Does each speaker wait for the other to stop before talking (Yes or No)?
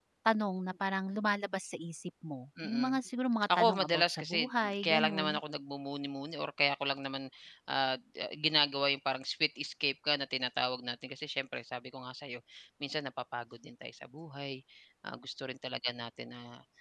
No